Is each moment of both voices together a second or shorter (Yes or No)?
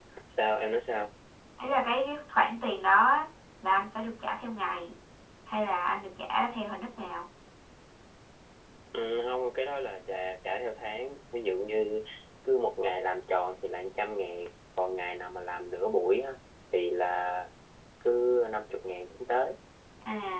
Yes